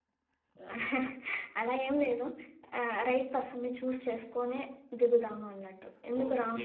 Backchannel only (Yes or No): No